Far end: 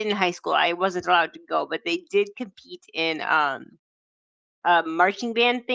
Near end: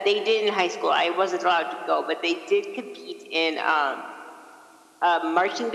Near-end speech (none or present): none